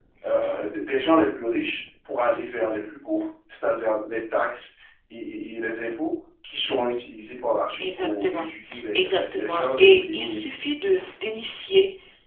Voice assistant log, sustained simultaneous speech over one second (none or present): present